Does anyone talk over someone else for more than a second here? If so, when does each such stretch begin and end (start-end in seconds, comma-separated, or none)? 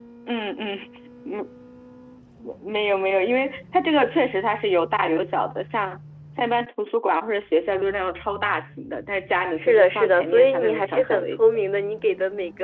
9.6-11.4